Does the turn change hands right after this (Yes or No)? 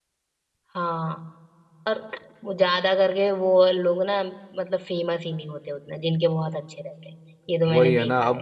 Yes